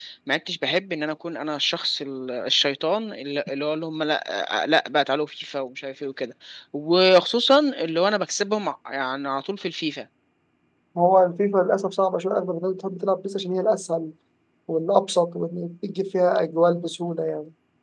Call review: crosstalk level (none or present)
none